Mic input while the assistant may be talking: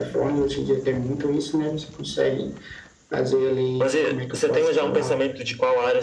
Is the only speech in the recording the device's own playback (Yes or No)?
Yes